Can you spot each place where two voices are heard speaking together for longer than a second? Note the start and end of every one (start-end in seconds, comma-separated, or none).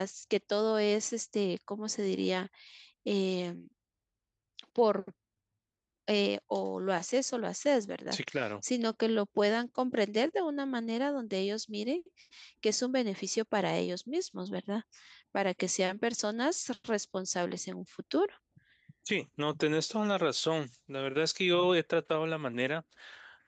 none